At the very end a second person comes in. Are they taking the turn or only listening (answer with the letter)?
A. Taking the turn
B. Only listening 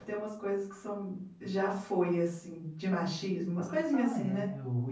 A